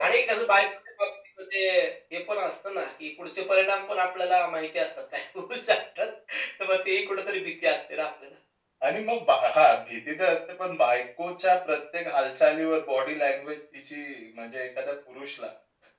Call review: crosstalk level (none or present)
none